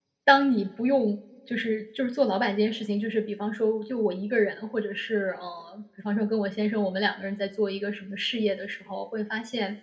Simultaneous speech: No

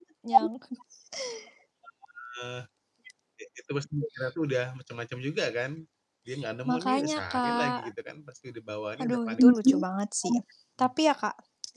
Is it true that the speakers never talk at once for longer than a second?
No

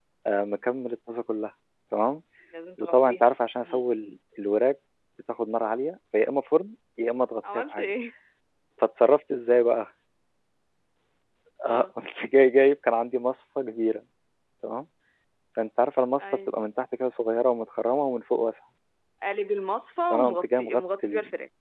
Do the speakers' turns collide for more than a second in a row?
Yes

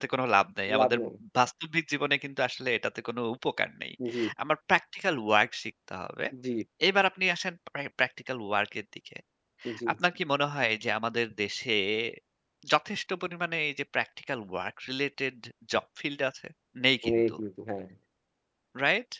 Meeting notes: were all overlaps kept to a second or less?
Yes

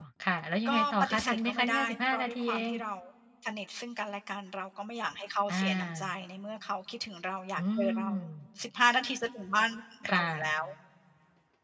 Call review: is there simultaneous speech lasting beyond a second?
Yes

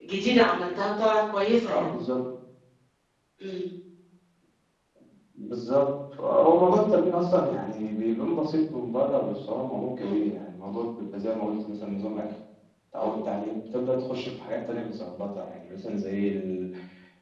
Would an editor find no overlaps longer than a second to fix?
Yes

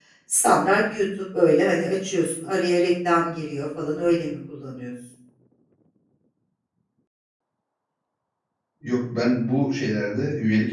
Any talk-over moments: No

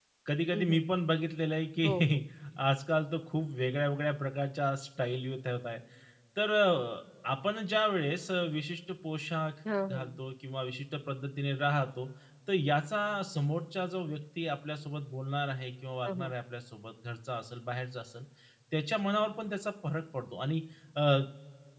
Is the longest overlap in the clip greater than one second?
No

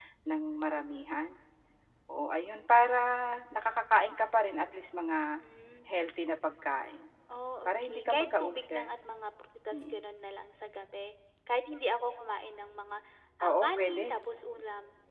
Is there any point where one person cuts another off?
Yes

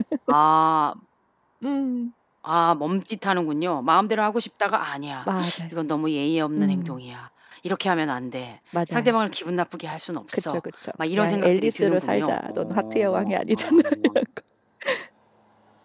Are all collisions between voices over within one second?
No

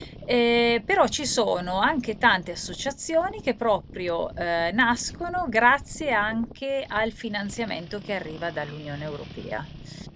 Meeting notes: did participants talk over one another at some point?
No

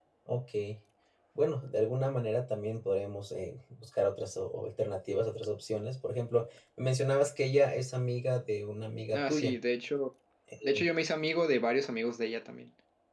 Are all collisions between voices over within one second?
Yes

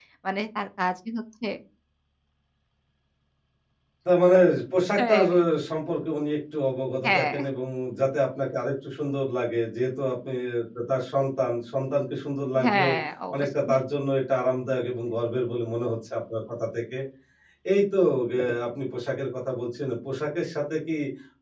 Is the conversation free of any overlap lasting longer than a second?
Yes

